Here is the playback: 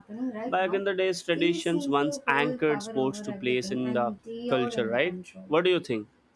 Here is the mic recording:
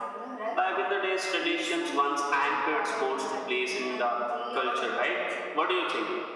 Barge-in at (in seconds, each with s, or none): none